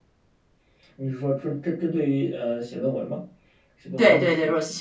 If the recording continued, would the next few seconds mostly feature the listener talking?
Yes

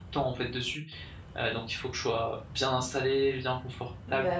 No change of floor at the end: No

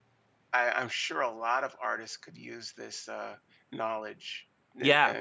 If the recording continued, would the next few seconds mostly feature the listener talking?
Yes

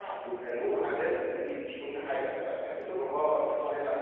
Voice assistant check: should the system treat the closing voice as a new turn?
Yes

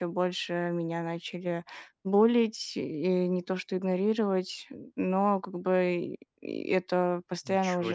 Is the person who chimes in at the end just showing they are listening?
Yes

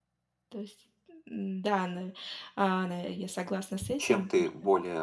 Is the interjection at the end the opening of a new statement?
Yes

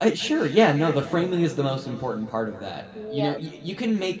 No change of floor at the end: Yes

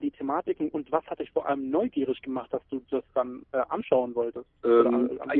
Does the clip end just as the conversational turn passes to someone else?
Yes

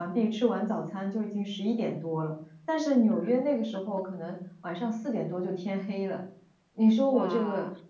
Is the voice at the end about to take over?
No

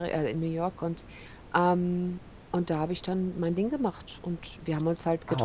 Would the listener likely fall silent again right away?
Yes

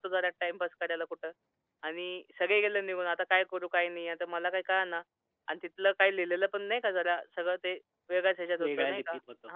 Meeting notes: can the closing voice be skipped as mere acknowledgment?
No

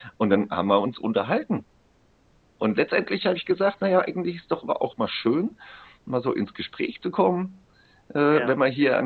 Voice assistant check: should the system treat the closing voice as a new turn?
No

